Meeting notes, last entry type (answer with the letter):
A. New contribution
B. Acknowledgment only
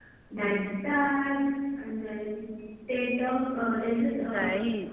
B